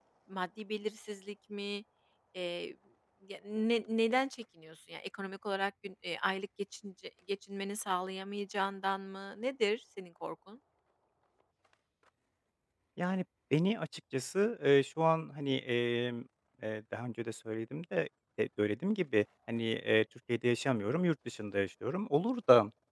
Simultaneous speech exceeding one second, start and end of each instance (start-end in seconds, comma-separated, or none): none